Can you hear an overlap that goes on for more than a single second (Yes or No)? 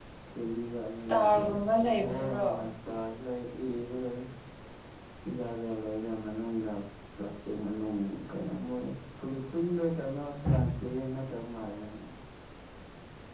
Yes